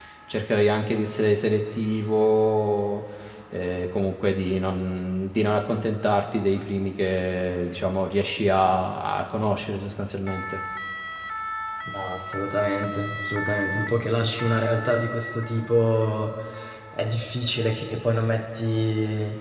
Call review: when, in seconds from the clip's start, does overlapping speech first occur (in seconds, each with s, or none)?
none